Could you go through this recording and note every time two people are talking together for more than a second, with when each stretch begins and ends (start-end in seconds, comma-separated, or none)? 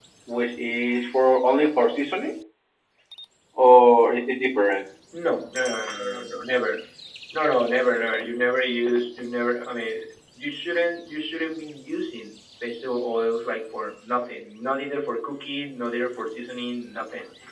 none